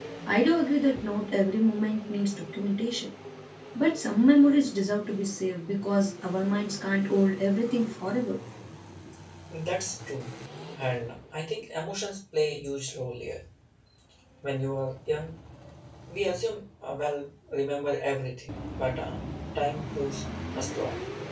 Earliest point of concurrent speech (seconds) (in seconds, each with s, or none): none